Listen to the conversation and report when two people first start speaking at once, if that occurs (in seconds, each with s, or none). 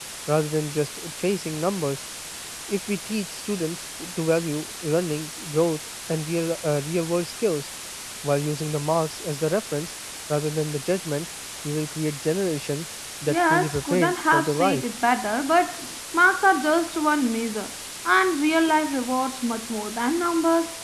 13.3 s